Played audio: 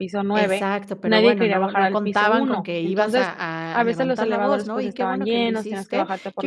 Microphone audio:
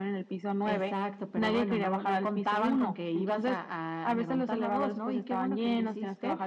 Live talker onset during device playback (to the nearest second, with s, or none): none